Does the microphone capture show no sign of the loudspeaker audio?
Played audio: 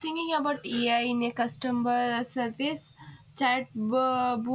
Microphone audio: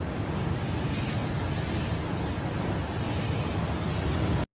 Yes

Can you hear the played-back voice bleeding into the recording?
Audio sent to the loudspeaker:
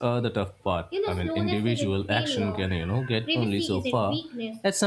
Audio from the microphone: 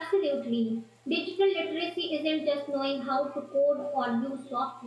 No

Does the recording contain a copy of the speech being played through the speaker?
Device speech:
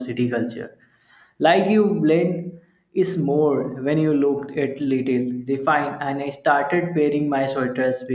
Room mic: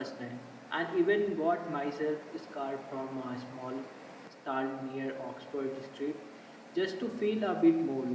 No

